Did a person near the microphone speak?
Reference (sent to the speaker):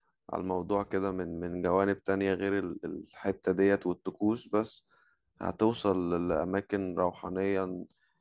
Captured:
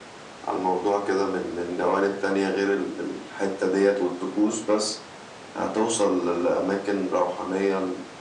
No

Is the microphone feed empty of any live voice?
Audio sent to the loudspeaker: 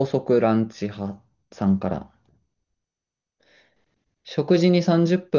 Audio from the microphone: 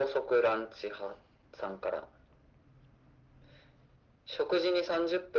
Yes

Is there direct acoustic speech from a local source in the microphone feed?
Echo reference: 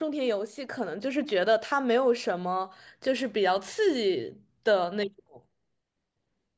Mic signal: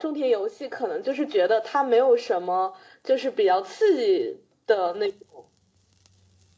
No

